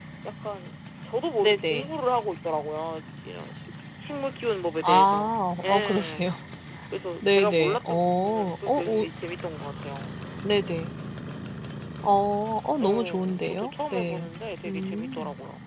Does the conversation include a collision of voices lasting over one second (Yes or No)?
Yes